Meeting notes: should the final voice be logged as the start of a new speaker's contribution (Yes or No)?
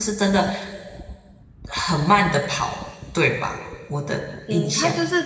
Yes